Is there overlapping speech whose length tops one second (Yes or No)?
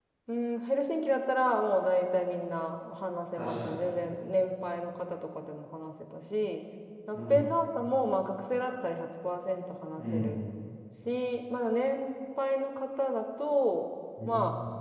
No